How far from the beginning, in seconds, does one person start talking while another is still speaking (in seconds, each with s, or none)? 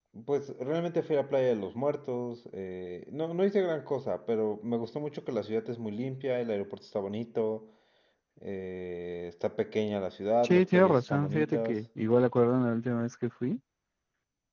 10.4 s